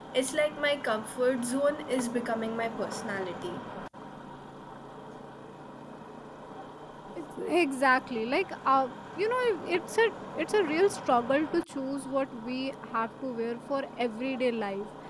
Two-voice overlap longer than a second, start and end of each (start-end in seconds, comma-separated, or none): none